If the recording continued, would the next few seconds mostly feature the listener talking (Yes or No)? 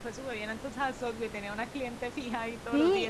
Yes